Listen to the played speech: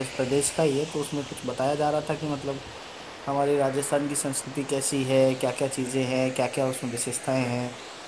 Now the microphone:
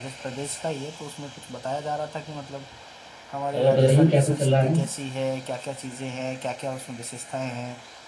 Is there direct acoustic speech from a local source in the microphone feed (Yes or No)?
Yes